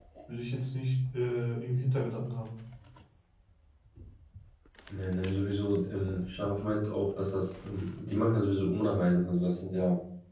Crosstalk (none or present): none